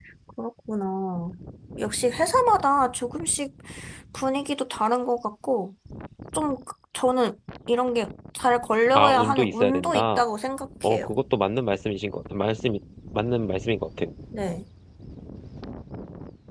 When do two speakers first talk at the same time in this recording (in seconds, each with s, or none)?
9.0 s